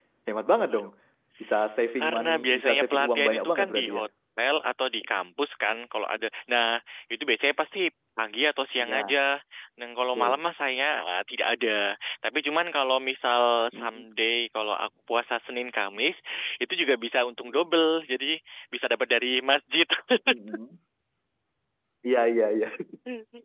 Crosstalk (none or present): present